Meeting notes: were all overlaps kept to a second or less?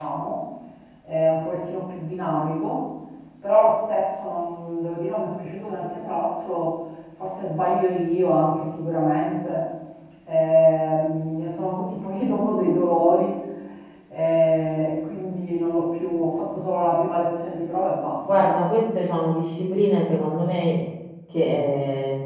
Yes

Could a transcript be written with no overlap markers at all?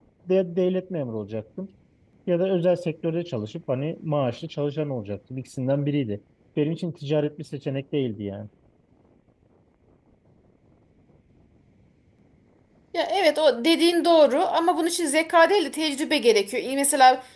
Yes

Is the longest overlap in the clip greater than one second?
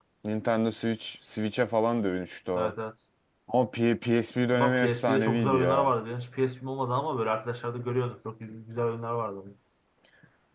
Yes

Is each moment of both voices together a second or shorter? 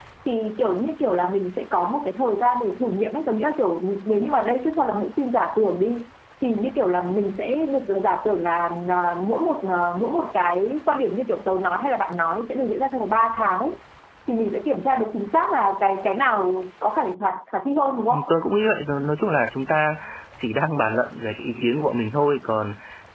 Yes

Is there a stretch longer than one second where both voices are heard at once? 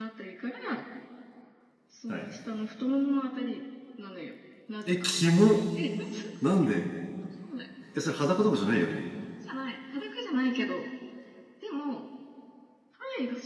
No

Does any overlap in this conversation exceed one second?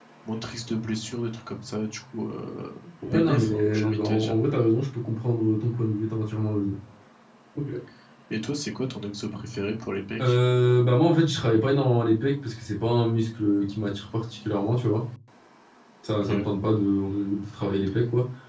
Yes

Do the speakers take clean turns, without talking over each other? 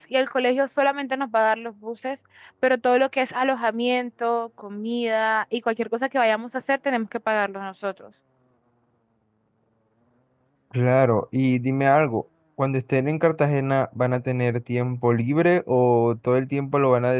Yes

